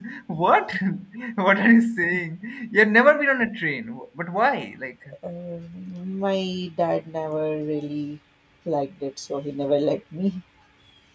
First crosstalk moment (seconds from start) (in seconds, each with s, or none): none